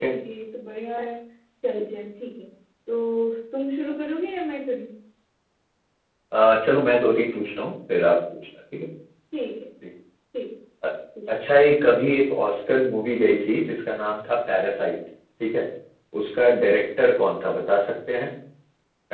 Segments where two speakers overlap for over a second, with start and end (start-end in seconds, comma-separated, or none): none